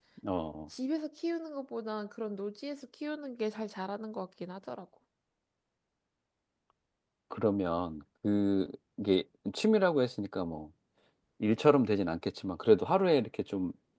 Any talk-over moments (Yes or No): No